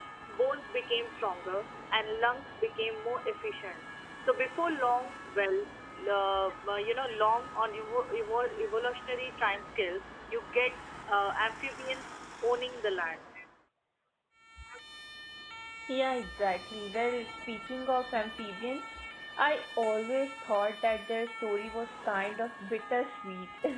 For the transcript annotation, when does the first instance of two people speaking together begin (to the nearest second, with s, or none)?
none